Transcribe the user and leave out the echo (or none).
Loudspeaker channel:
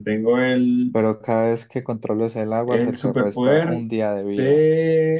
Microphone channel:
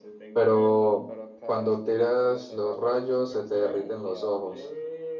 pero cuando tiras los rayos se te derriten los ojos.